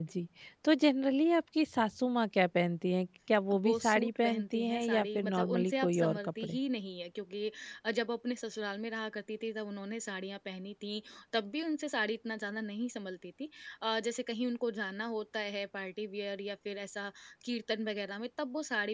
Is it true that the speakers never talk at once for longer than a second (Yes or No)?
No